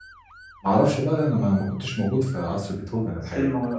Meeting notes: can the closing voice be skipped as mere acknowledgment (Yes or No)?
No